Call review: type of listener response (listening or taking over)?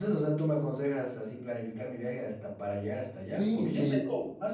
listening